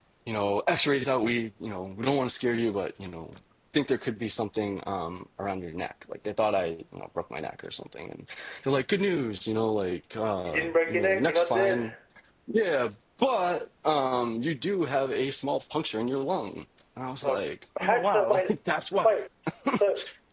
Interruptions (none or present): present